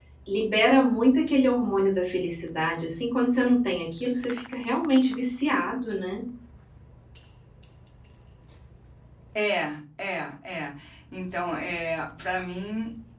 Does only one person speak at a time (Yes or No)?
Yes